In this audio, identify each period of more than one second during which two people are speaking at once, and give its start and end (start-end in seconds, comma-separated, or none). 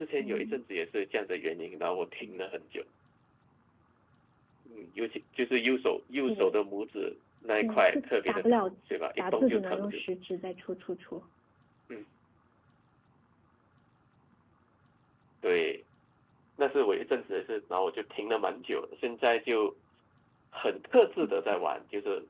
7.6-10.0